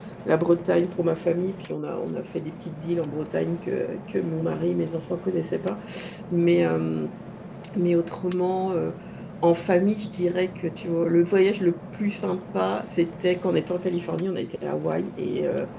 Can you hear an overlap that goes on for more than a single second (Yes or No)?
No